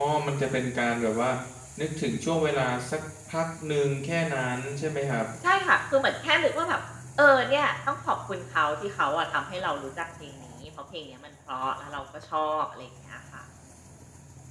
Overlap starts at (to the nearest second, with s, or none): none